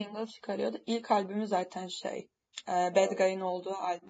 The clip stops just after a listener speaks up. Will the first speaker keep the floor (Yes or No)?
Yes